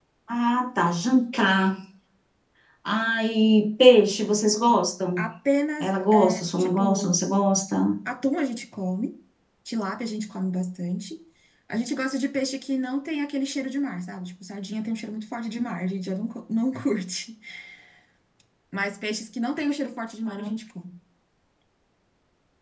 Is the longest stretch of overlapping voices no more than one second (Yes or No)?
No